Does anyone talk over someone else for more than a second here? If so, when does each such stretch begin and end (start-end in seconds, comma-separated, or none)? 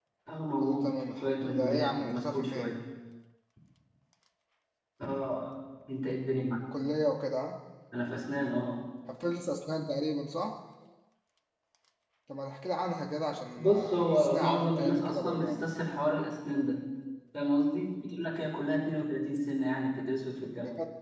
0.6-2.7, 13.6-15.7